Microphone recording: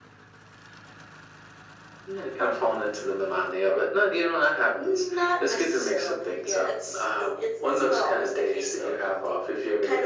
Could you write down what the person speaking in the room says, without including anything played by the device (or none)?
none